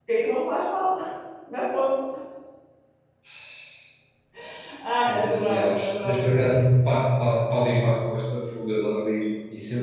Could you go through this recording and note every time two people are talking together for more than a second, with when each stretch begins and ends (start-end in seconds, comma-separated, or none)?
5.1-6.5